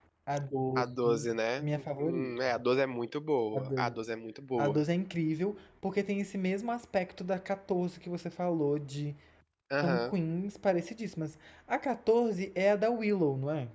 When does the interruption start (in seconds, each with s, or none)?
0.8 s